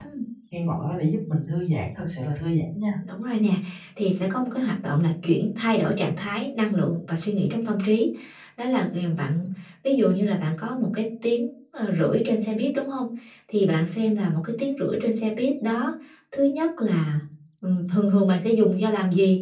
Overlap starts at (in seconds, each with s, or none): none